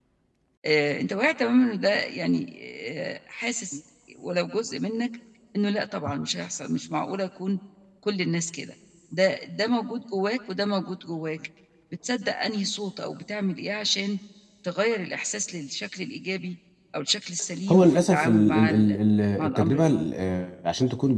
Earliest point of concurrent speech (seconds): 18 s

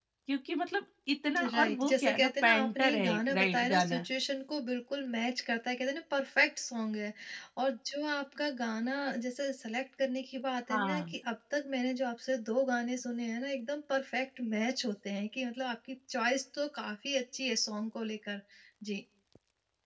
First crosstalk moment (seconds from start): 2 s

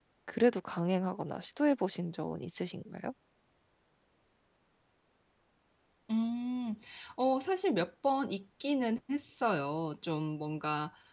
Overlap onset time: none

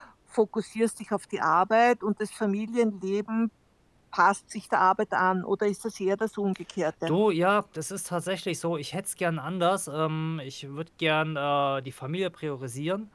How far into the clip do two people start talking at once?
none

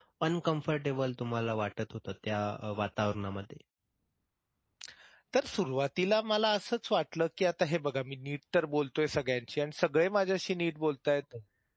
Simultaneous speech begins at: none

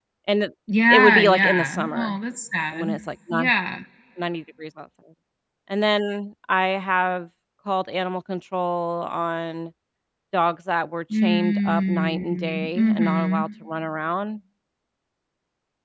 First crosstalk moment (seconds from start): 1 s

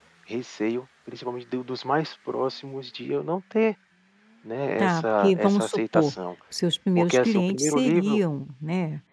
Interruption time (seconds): 5 s

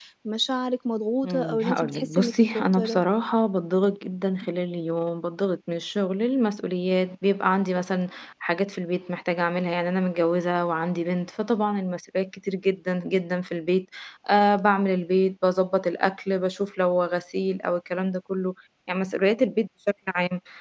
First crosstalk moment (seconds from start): 1 s

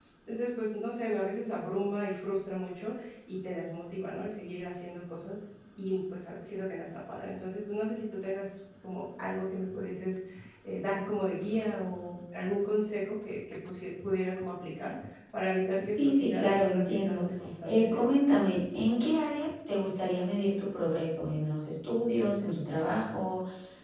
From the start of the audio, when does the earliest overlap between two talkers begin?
16 s

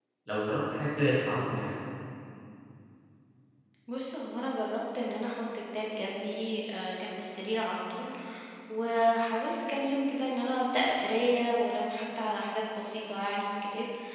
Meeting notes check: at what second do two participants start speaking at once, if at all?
none

